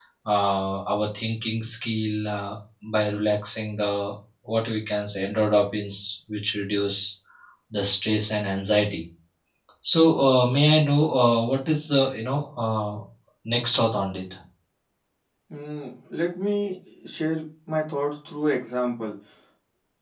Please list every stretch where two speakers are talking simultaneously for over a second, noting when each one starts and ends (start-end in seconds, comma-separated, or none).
none